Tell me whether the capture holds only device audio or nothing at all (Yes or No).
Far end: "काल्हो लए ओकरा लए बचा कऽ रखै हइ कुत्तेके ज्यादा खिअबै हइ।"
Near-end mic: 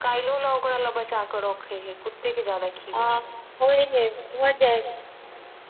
No